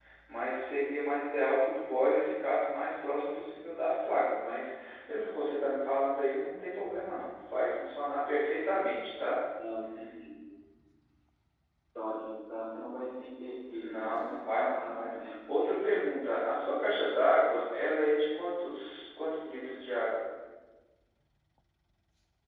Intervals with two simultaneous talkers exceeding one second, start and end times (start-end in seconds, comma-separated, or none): 13.7-16.1